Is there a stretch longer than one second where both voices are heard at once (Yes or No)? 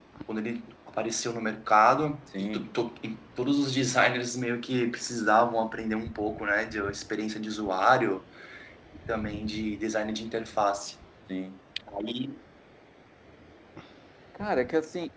No